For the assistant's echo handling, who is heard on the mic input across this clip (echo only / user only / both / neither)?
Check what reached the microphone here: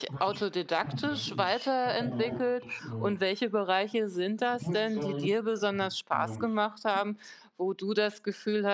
both